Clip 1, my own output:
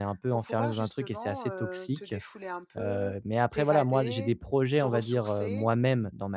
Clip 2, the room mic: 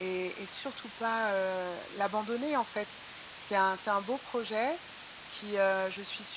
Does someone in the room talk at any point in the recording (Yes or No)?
Yes